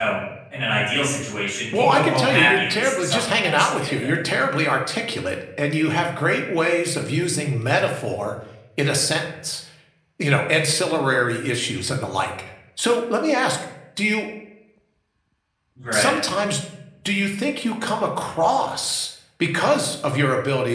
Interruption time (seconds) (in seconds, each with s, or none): 1.7 s